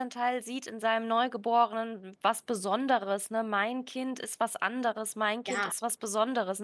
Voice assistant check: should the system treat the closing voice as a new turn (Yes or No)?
No